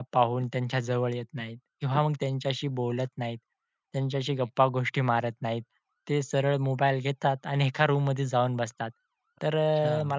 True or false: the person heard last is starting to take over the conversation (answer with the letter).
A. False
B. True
A